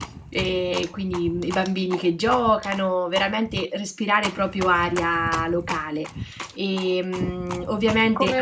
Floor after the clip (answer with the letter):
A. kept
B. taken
B